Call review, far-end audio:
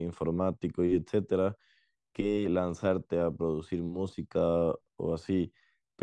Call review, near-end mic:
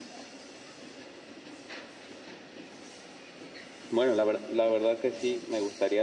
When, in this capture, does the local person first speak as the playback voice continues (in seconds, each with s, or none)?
3.9 s